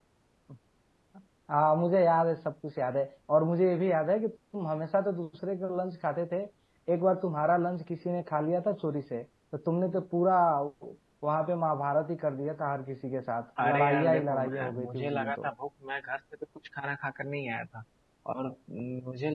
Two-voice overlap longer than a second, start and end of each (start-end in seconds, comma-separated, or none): 13.6-15.5